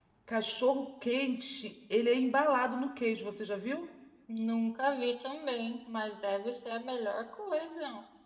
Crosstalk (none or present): none